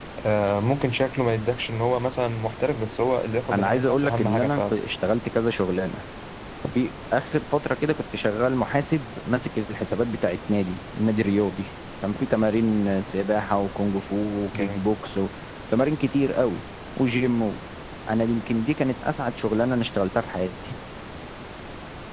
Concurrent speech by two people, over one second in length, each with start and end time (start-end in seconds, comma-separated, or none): 3.5-4.8